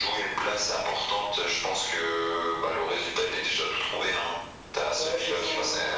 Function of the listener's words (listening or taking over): taking over